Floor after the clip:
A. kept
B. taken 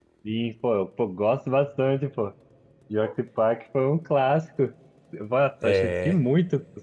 A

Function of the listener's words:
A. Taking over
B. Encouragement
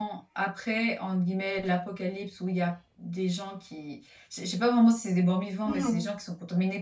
B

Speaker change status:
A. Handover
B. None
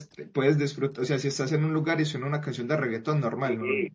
A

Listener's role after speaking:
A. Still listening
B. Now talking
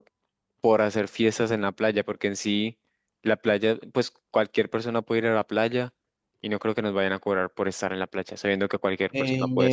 B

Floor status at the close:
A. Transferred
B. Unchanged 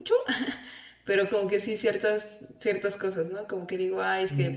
B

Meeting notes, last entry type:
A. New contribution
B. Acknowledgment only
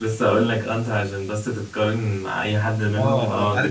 A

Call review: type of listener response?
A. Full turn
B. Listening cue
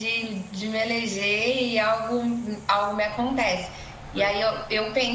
B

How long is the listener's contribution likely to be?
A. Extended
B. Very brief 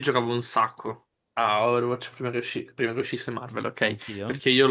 B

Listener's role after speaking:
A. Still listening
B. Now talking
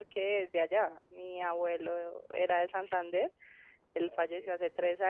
A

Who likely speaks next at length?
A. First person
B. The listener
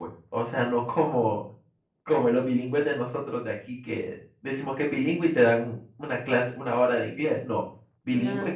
A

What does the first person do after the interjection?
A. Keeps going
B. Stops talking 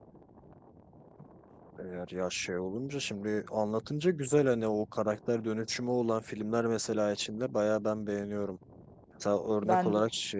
A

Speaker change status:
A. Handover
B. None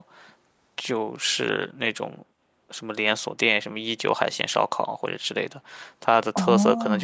A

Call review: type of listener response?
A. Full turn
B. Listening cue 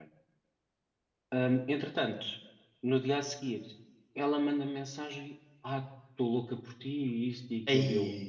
B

